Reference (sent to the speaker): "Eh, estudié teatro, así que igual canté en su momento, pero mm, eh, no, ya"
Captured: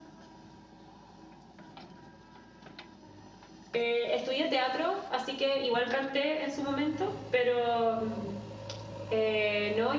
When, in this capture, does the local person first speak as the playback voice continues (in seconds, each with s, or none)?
none